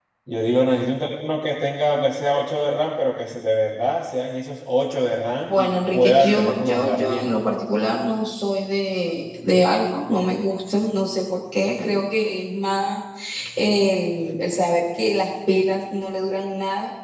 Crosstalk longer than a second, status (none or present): present